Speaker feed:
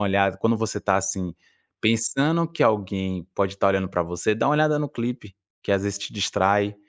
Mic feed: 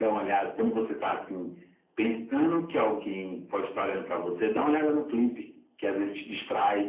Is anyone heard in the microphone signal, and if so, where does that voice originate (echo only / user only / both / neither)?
echo only